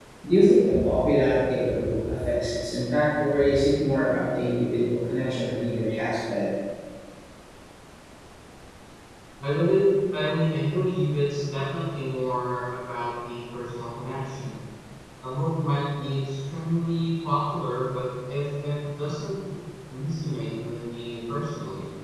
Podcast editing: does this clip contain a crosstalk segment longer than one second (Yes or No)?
No